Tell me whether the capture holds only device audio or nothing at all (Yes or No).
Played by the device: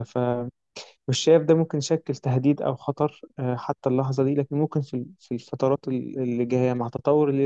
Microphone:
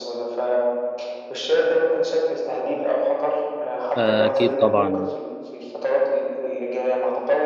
No